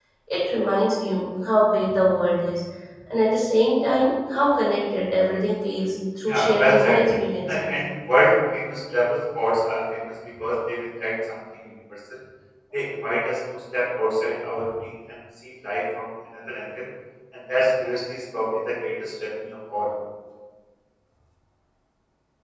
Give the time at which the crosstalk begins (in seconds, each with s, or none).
6.3 s